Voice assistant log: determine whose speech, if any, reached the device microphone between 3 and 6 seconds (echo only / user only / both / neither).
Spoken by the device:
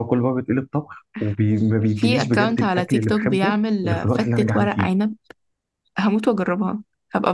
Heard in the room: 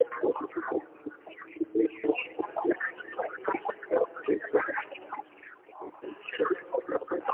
echo only